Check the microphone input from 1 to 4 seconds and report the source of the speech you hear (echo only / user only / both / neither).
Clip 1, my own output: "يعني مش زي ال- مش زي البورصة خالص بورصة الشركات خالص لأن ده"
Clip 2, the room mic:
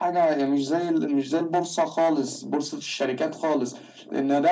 echo only